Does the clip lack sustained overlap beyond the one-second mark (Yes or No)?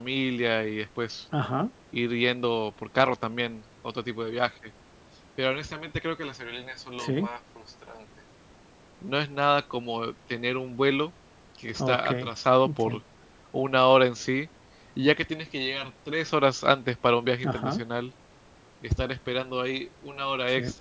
Yes